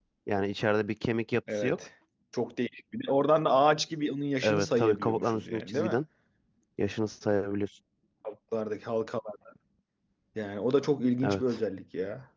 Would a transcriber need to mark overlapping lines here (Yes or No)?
Yes